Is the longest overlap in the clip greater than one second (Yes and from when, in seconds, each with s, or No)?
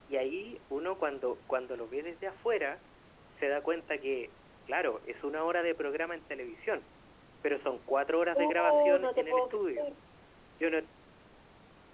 Yes, from 8.3 s